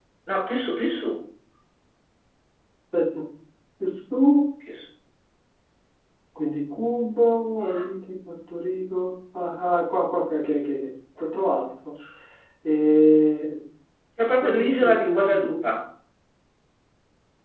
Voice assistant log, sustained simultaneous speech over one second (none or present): present